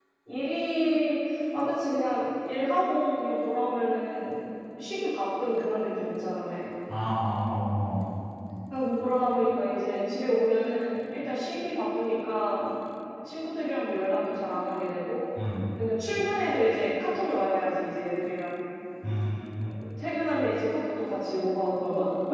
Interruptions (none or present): none